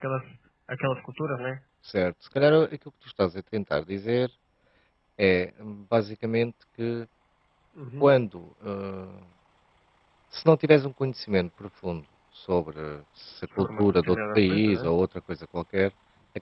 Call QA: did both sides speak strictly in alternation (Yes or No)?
No